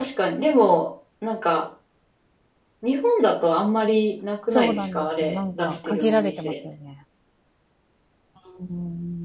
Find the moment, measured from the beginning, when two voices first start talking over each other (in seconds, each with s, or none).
4.5 s